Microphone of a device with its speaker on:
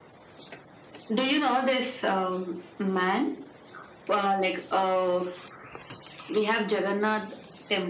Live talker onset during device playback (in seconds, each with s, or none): none